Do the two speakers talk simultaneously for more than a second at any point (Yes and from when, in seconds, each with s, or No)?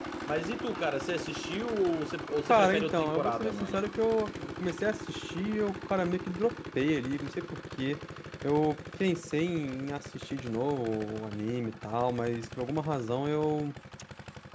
Yes, from 2.5 s